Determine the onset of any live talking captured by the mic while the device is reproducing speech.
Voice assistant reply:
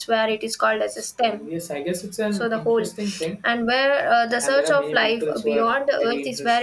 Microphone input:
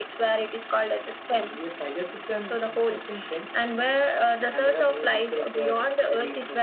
none

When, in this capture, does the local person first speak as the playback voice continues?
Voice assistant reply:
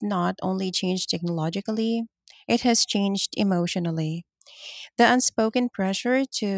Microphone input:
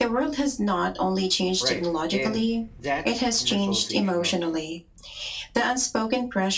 1.6 s

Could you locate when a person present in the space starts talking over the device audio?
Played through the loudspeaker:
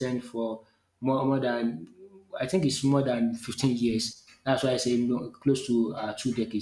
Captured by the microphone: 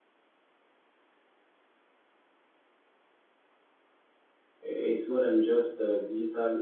4.6 s

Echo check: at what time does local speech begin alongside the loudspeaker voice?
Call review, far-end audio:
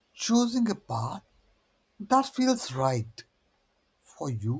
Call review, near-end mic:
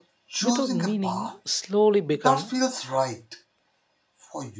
0.4 s

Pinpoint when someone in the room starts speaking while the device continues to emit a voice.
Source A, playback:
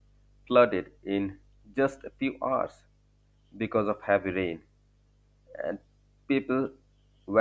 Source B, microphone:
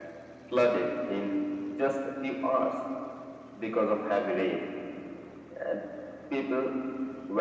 none

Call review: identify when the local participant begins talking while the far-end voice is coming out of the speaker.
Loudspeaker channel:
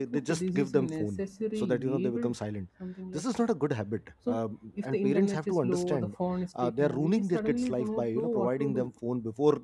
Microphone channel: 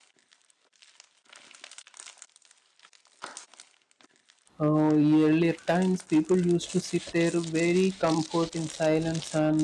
4.6 s

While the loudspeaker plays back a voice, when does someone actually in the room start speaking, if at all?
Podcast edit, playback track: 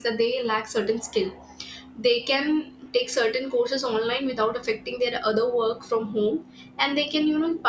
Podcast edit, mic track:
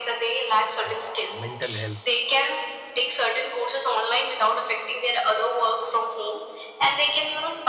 0.8 s

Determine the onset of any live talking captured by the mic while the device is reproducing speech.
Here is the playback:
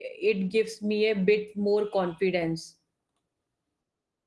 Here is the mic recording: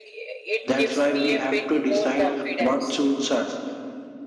0.7 s

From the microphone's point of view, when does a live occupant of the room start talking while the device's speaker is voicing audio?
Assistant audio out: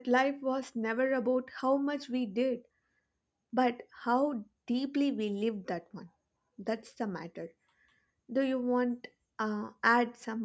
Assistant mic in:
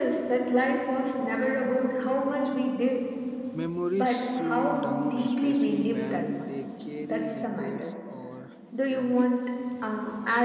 3.5 s

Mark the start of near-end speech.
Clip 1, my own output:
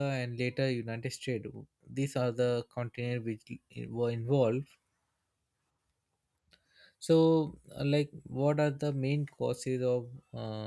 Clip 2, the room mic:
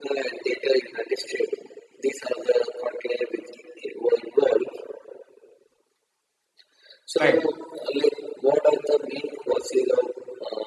7.2 s

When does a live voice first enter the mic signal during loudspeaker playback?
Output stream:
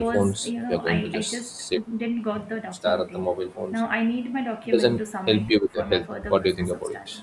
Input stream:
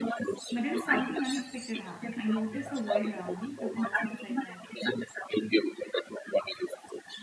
0.5 s

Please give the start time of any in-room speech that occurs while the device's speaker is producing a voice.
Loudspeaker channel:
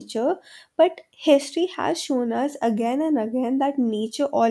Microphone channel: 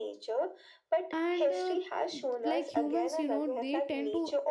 1.1 s

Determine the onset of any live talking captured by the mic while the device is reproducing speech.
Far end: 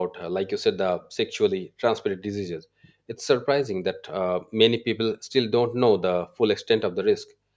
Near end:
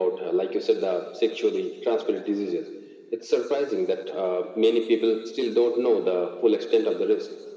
none

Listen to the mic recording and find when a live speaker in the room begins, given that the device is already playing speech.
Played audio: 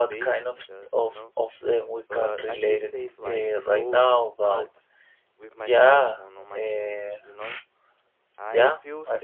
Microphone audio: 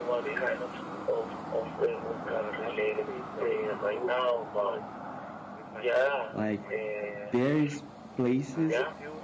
6.3 s

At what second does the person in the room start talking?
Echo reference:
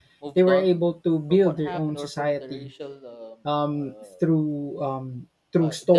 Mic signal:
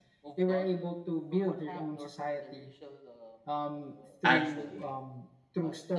4.2 s

